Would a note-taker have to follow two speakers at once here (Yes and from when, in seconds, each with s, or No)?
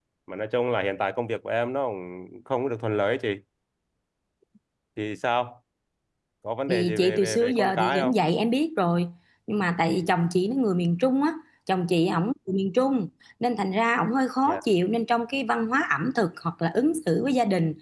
Yes, from 6.7 s